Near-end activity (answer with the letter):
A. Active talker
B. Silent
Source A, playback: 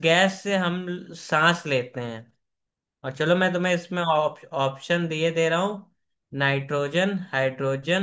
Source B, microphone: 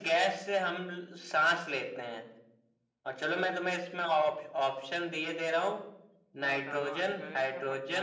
A